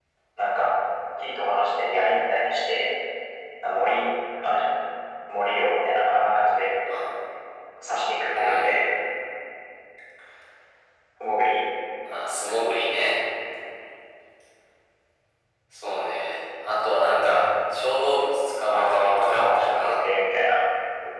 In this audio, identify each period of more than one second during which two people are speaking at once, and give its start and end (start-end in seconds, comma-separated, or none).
18.7-19.9